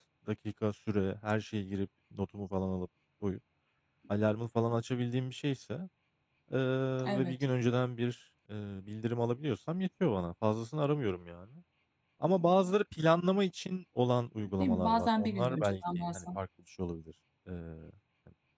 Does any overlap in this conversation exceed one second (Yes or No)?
Yes